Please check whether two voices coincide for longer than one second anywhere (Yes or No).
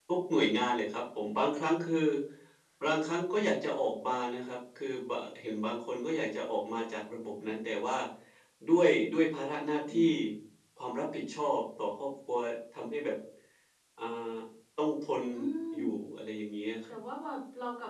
No